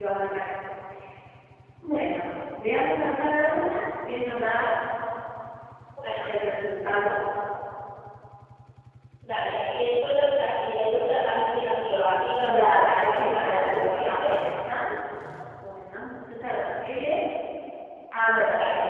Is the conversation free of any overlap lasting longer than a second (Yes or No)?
No